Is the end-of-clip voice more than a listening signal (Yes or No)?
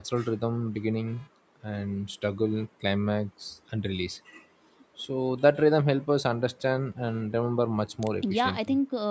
Yes